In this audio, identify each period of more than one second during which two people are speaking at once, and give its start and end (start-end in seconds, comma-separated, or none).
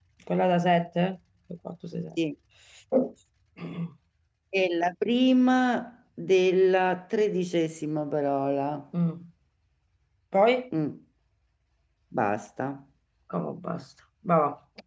none